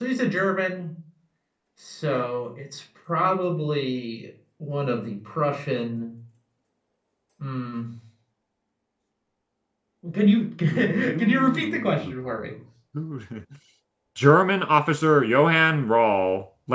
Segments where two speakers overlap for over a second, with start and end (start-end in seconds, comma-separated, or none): 10.7-12.1